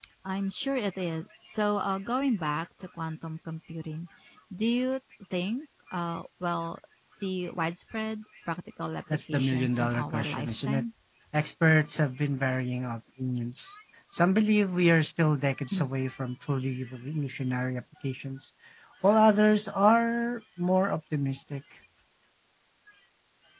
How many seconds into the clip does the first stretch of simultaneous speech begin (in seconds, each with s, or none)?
9.1 s